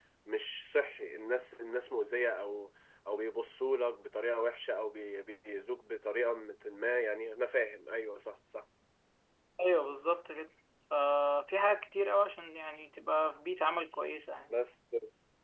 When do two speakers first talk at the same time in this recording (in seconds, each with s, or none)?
none